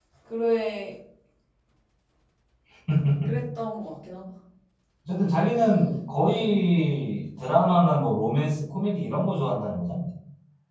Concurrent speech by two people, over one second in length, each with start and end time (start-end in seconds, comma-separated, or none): none